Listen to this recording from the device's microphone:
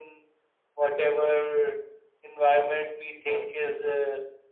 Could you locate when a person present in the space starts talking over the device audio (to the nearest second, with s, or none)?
none